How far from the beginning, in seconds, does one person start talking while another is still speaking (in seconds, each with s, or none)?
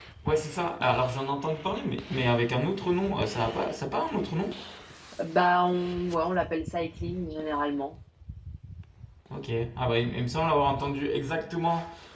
none